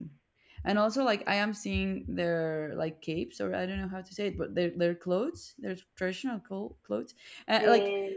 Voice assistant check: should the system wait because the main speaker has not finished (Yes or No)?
Yes